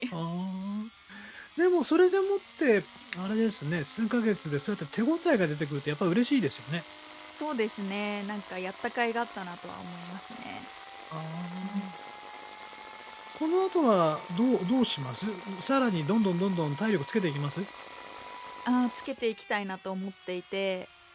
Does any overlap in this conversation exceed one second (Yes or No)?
No